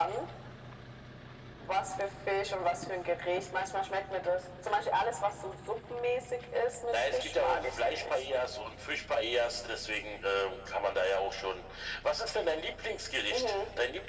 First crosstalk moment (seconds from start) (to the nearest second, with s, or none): 7 s